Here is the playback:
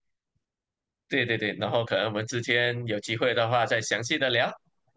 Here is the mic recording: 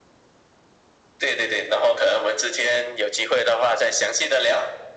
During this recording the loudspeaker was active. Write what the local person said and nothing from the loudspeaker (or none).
none